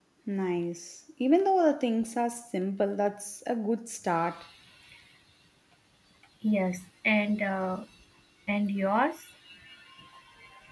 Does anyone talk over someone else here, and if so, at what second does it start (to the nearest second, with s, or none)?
none